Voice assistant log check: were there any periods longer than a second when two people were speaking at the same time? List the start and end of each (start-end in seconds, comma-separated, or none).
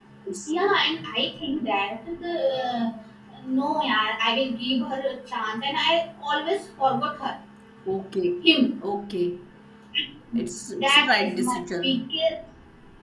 10.8-12.0